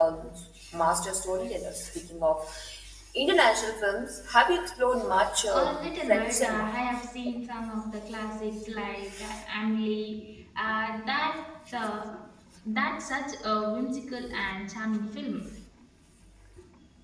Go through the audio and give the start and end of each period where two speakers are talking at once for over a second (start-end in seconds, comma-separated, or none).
5.5-6.7